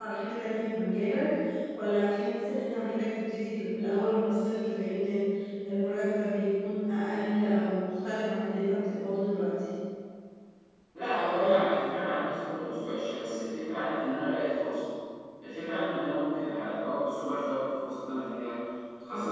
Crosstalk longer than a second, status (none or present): none